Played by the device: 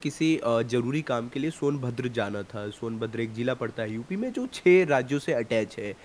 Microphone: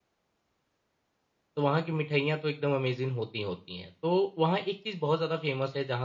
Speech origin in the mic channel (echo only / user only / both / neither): user only